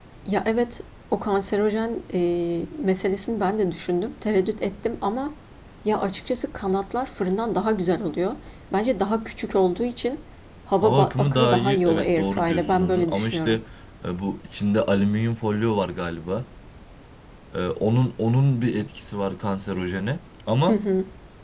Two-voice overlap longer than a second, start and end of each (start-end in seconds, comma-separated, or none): 10.8-13.6